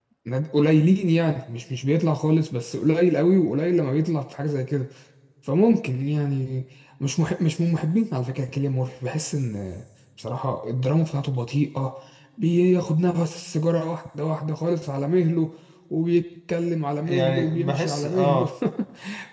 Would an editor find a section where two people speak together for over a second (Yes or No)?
Yes